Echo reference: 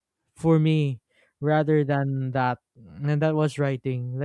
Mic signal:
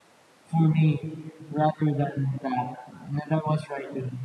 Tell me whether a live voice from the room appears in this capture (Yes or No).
No